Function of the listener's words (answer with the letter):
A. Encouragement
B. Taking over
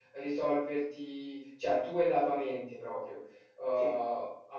A